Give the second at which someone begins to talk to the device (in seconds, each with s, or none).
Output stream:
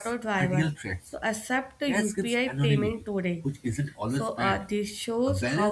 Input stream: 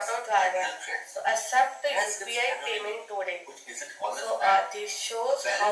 none